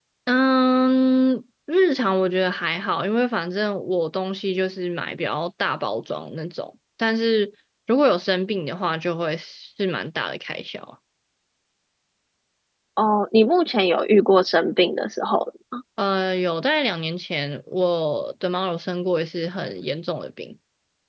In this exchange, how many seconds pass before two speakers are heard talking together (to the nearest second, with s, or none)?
none